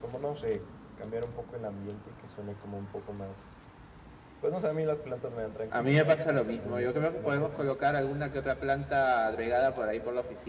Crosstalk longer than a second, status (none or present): present